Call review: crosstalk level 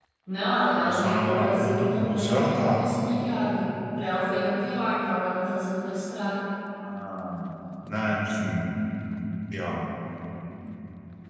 present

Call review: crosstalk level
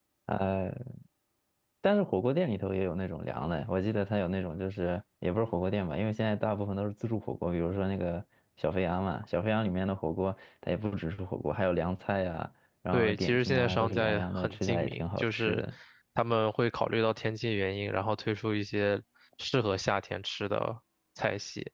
present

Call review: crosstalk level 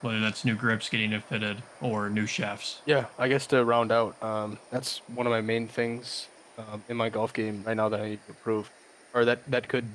none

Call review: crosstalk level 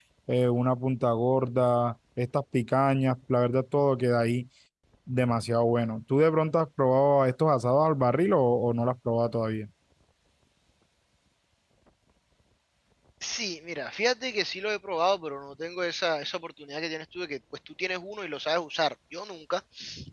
none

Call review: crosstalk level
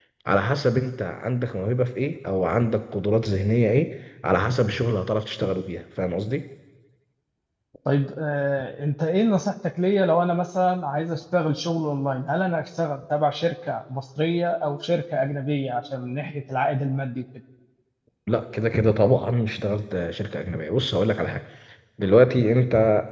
none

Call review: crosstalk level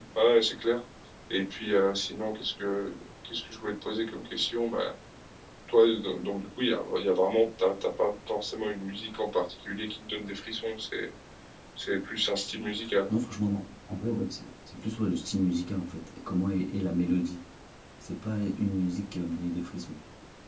none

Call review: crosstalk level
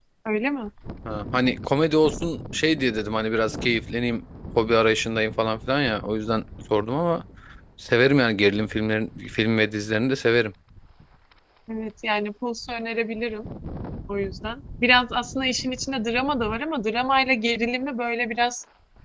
none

